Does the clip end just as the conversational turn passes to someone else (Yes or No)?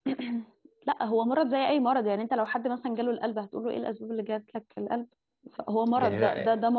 No